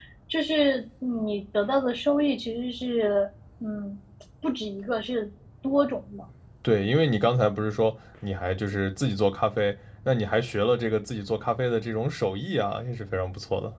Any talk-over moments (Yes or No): No